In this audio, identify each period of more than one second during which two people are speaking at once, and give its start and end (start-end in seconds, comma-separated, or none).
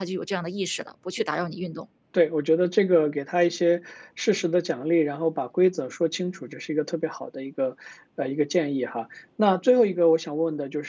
none